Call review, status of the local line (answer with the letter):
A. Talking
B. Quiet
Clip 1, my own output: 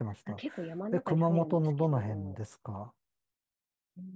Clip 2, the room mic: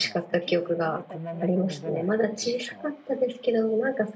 A